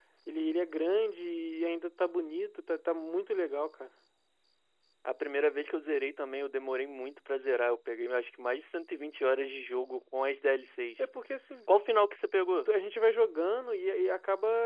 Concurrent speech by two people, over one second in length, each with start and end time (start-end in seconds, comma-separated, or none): none